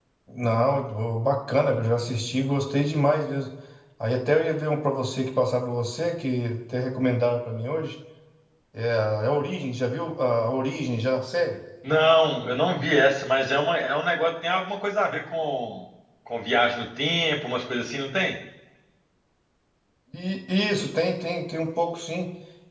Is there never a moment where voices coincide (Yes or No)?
Yes